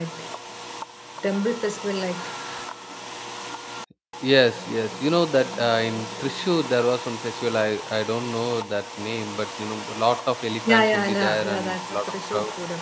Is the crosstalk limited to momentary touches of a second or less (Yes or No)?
No